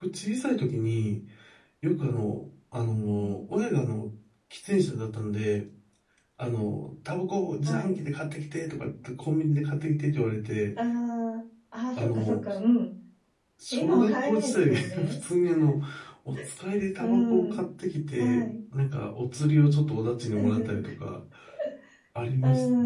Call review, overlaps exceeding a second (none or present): present